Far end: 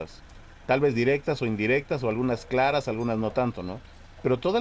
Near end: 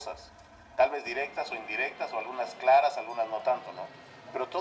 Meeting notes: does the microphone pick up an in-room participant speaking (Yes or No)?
No